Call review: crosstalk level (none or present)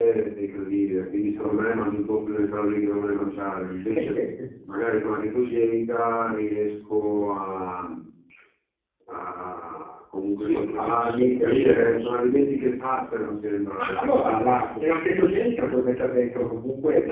present